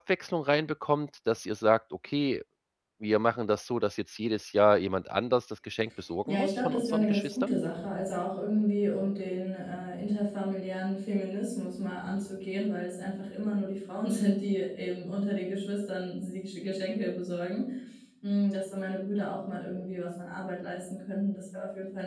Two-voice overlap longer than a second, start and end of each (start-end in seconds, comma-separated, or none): 6.2-7.5